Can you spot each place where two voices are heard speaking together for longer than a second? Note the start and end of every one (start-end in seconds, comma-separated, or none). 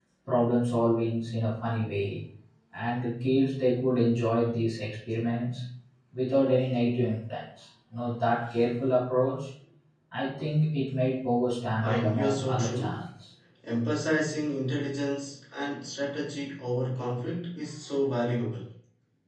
11.8-13.0